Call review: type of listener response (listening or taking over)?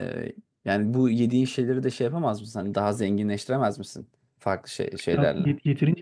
taking over